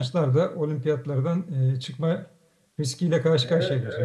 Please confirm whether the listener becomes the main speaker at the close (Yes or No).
Yes